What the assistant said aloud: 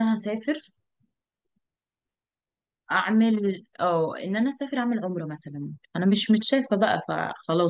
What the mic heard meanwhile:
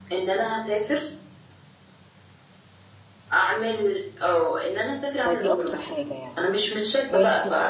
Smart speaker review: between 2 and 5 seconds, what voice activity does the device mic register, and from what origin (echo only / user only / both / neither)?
echo only